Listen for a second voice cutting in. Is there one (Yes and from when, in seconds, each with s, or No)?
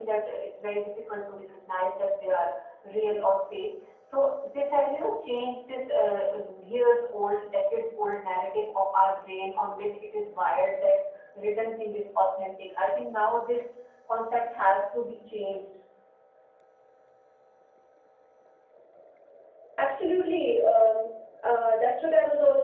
No